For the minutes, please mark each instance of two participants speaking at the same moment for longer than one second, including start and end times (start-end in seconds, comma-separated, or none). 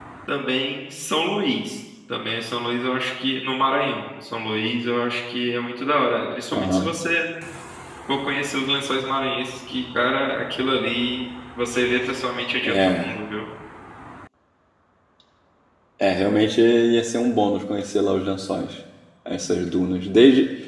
none